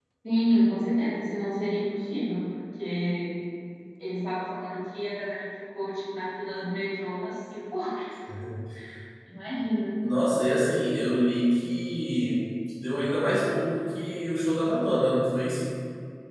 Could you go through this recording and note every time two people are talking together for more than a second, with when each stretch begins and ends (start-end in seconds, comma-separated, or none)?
none